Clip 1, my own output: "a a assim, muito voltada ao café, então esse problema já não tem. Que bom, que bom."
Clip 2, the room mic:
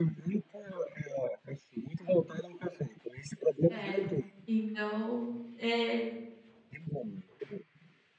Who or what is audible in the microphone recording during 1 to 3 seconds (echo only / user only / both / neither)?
echo only